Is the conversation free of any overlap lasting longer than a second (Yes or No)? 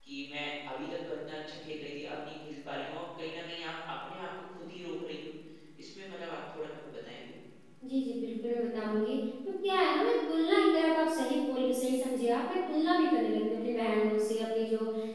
Yes